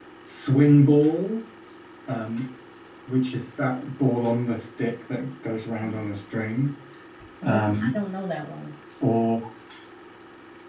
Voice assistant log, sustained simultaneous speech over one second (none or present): none